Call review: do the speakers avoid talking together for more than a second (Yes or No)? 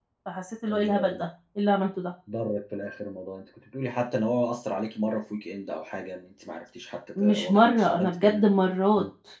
No